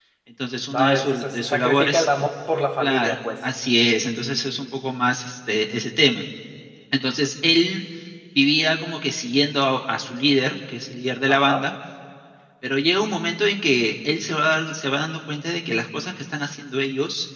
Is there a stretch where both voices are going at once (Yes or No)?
Yes